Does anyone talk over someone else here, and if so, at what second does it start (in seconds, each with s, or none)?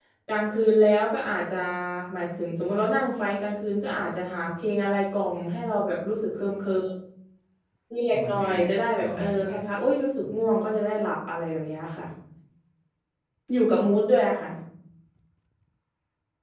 8.1 s